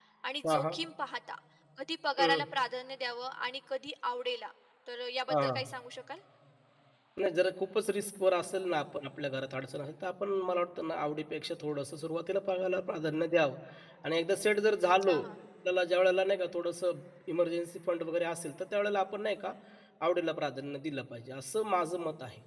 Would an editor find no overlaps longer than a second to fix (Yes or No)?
Yes